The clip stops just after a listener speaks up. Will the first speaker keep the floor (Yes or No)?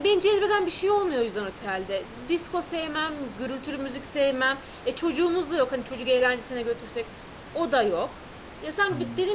Yes